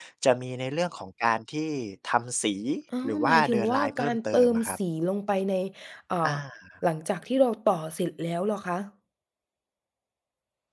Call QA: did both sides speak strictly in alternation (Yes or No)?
No